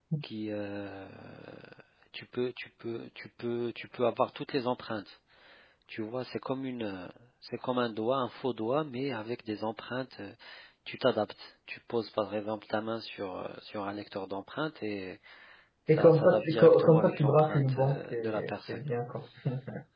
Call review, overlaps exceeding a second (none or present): present